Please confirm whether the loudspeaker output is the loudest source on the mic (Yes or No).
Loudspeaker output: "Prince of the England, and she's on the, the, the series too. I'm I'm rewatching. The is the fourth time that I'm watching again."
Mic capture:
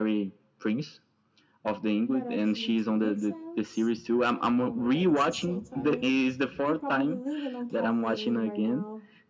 Yes